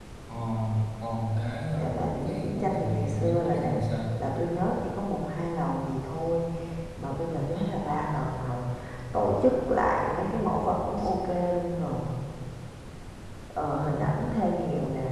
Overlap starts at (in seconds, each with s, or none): 1.7 s